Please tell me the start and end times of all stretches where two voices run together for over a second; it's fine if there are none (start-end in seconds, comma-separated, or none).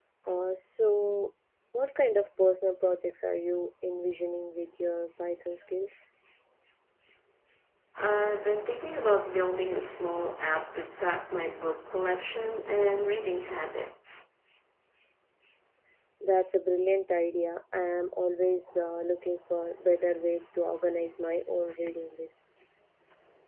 none